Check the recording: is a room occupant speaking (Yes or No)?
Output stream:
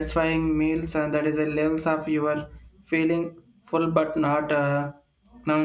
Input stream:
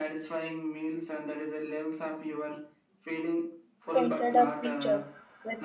Yes